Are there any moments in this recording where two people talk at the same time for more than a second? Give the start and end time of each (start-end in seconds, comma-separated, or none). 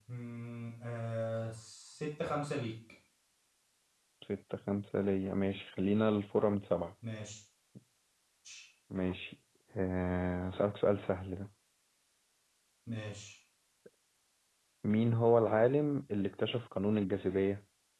none